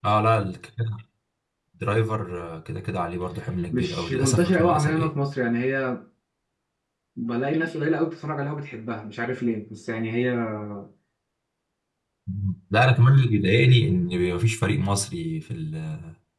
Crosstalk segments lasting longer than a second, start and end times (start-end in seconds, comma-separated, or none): 3.7-5.1